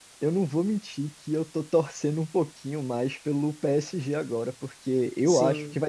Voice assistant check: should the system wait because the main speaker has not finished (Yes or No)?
Yes